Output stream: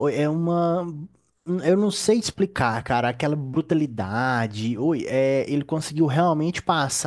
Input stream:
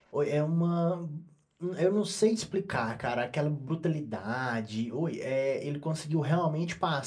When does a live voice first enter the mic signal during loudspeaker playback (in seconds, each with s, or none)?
none